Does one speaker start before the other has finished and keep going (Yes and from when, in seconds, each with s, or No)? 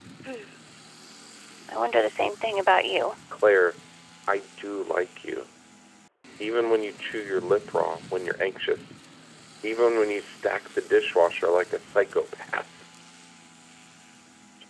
No